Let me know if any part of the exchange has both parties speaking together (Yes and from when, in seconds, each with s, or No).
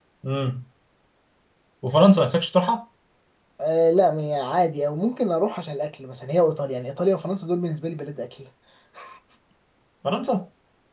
No